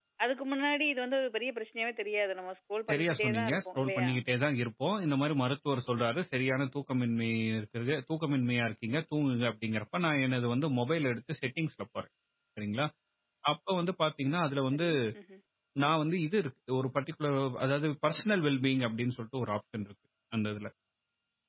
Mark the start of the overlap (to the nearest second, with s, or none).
3 s